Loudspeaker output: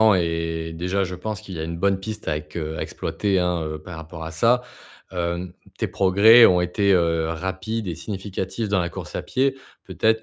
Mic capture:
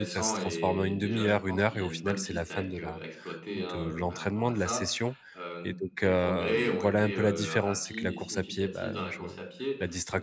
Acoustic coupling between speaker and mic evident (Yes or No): Yes